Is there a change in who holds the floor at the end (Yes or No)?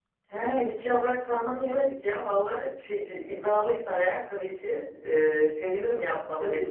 Yes